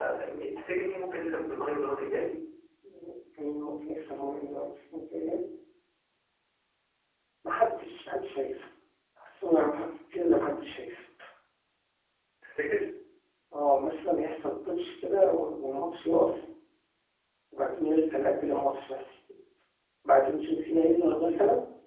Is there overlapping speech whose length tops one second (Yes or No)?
No